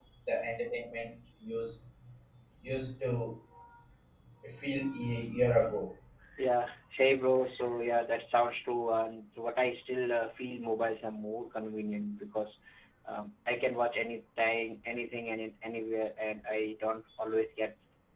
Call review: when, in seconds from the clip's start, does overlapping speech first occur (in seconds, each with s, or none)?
none